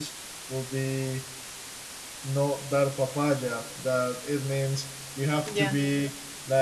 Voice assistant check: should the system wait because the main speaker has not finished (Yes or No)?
Yes